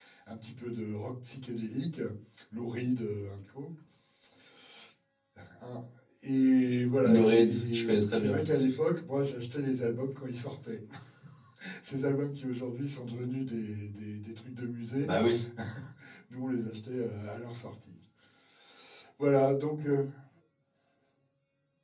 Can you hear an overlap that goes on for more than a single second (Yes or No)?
Yes